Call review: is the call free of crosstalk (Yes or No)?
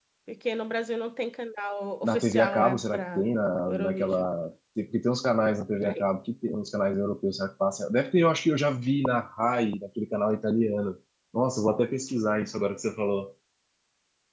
No